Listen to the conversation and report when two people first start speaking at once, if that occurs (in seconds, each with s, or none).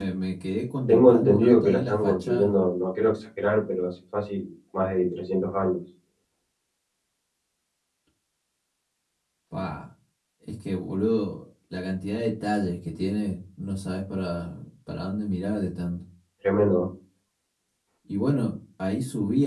0.9 s